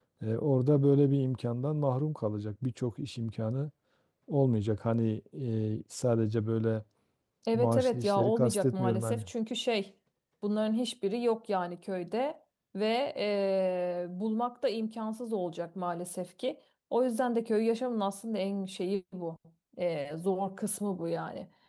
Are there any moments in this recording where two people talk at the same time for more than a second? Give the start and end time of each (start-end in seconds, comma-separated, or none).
7.5-9.2